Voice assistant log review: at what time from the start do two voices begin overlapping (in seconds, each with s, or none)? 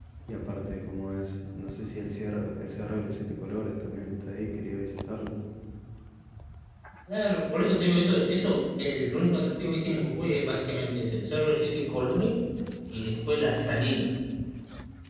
none